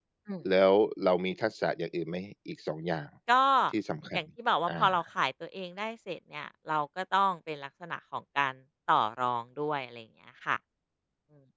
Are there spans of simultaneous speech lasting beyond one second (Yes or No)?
No